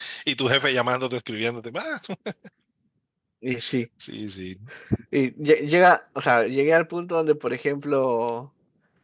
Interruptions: none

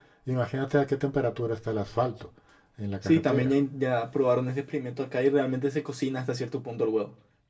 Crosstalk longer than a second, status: none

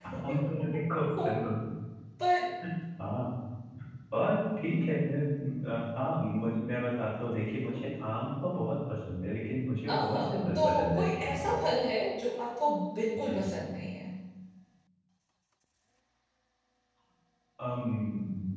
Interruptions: present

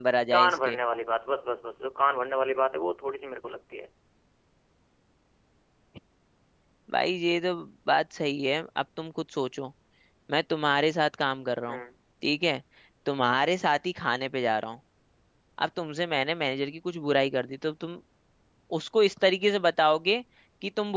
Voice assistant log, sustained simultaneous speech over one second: none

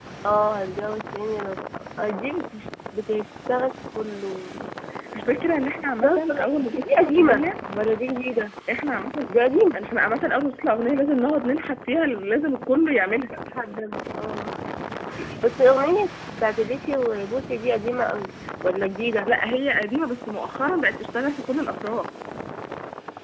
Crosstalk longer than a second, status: present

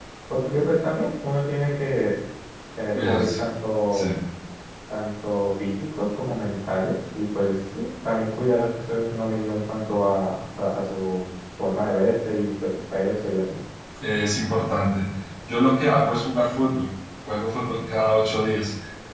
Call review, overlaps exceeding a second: none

